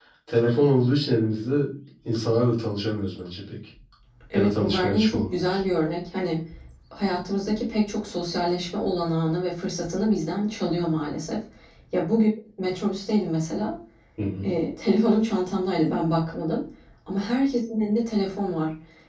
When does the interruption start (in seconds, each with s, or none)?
4.3 s